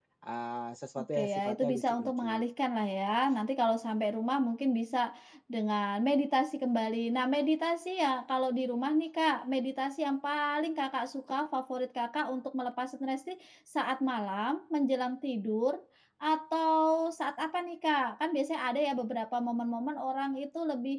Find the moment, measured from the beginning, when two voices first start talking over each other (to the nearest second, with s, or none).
1 s